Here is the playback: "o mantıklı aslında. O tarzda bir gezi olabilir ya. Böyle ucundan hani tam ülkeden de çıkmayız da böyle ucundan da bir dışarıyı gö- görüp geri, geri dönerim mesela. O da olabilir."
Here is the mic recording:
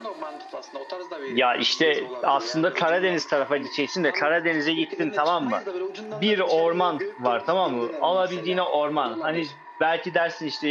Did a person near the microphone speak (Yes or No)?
Yes